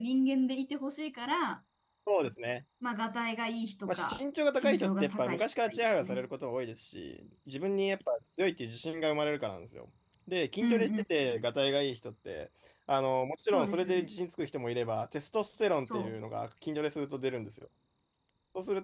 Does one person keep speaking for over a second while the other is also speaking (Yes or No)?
Yes